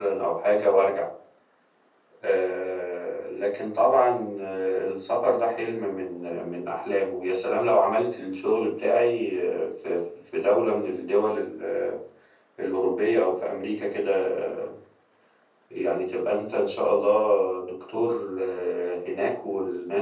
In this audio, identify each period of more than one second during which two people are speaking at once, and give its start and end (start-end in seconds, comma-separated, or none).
none